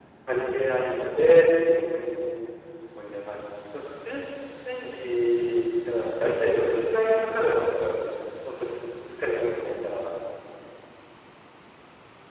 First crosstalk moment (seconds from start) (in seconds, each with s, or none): none